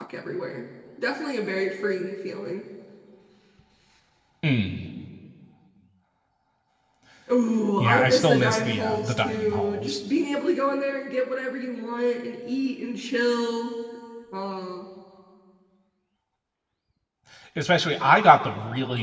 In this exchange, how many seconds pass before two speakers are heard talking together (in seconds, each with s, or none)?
7.8 s